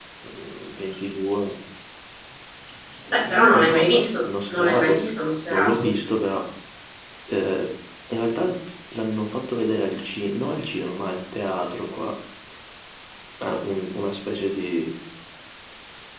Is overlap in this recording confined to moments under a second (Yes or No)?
No